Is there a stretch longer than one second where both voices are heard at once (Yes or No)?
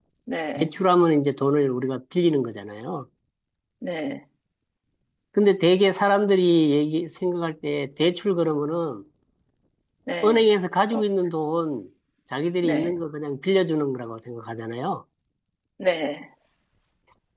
No